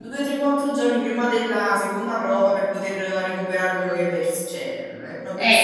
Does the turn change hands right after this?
Yes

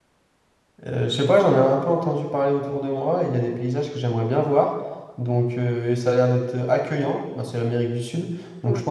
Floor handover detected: No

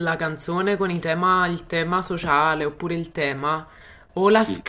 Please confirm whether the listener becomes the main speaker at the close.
No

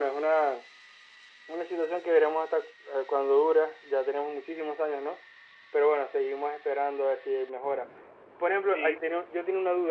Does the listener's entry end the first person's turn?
No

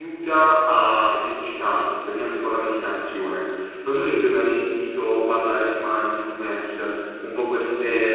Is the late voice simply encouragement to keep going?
Yes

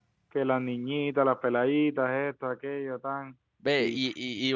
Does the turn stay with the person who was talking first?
No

